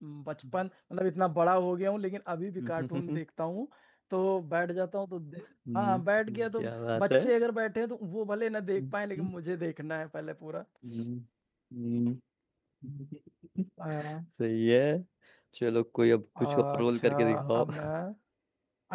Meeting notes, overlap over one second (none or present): present